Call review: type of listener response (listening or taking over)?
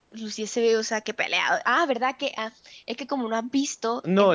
taking over